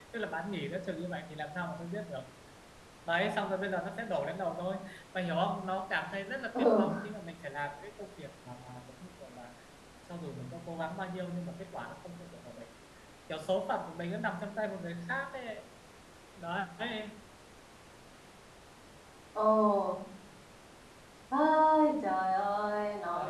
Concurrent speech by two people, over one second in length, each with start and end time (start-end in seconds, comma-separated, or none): none